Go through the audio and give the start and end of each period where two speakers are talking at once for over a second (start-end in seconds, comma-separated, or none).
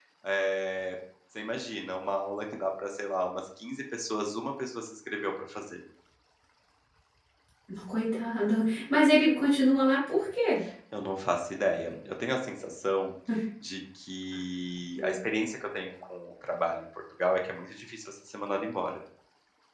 none